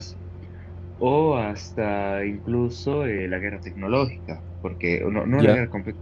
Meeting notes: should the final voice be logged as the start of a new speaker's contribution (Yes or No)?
No